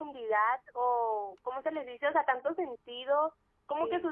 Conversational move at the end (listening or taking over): listening